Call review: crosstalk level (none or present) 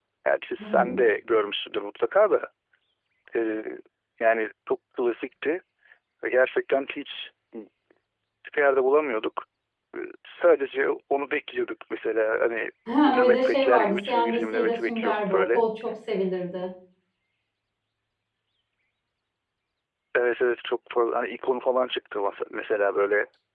present